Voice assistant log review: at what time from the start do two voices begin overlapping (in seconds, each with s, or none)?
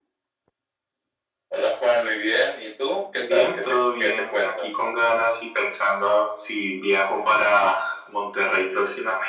3.1 s